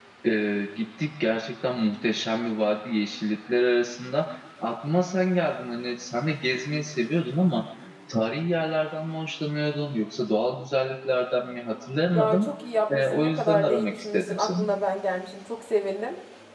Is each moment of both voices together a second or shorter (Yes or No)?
No